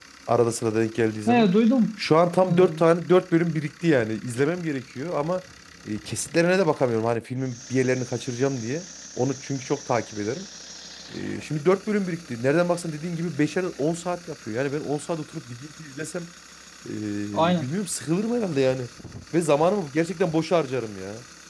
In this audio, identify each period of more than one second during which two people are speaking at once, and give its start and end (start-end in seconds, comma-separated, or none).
none